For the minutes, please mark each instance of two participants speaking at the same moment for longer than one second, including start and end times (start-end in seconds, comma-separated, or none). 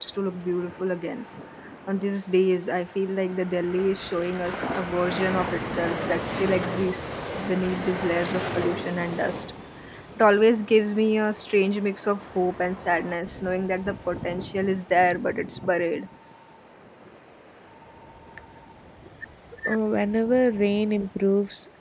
none